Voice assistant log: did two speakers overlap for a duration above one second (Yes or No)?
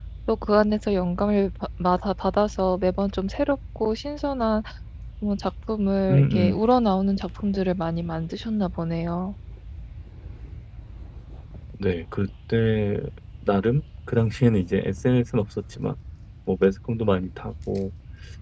No